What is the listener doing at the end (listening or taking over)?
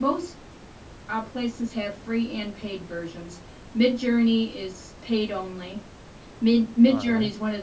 listening